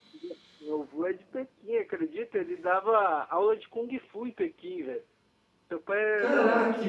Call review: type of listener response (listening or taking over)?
taking over